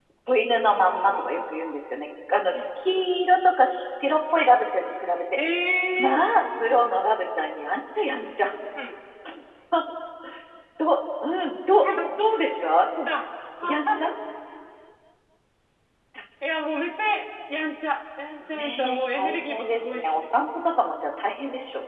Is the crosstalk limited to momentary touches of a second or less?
No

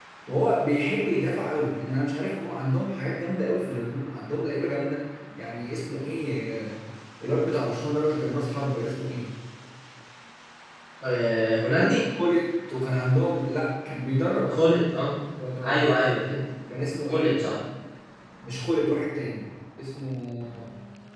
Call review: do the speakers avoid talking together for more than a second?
Yes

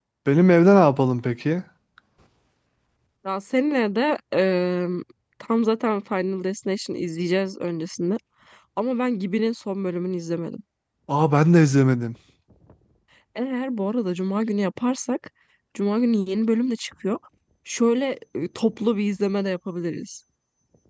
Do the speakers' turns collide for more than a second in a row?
No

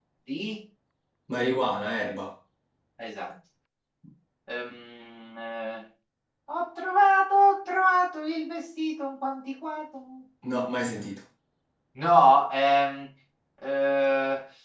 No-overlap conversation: Yes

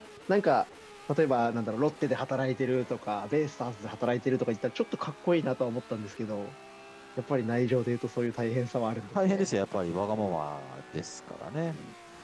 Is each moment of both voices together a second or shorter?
Yes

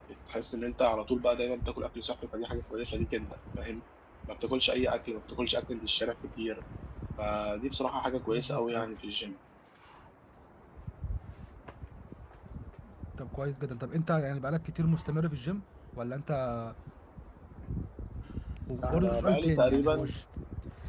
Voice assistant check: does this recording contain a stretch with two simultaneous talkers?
Yes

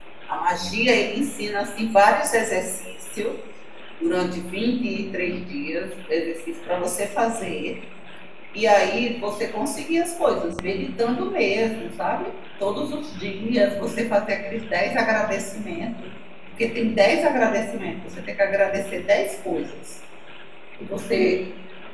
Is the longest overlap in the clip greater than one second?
No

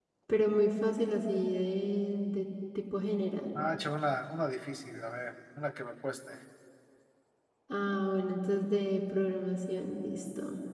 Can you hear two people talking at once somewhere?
No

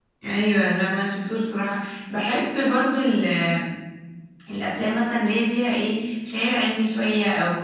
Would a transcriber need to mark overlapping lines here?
No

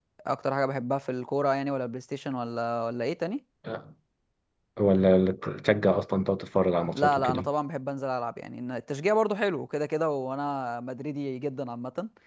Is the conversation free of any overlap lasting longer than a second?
Yes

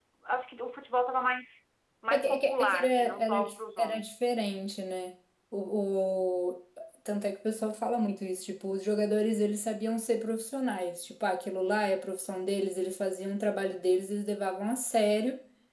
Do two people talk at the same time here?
Yes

